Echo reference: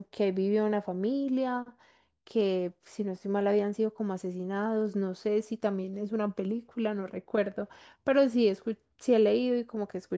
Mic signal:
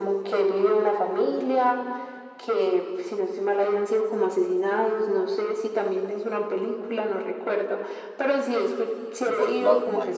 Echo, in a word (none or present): present